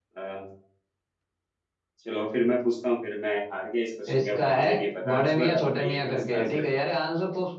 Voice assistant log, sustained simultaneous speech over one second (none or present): present